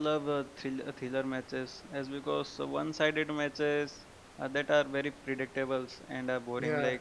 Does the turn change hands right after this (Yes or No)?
No